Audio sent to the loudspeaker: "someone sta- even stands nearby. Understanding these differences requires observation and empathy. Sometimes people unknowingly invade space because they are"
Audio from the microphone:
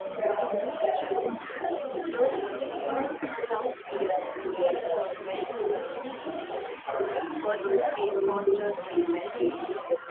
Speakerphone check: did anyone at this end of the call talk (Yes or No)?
Yes